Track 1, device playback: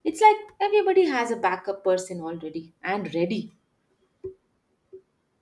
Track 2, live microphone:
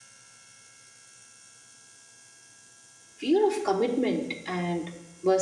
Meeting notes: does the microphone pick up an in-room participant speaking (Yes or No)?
Yes